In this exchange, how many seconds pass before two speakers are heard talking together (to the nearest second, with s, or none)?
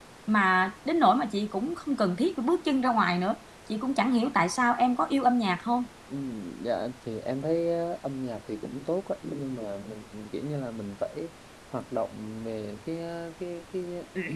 none